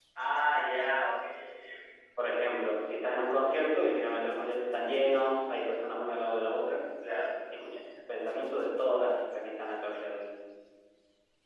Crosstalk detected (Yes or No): No